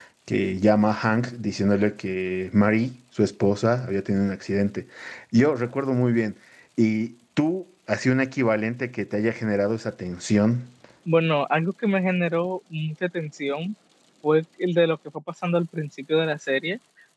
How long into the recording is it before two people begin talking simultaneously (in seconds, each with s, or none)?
none